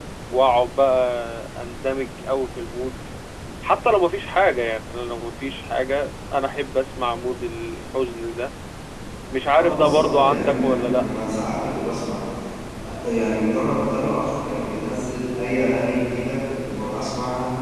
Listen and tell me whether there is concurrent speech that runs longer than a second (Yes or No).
Yes